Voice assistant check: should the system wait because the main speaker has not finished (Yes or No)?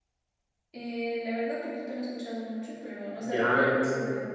No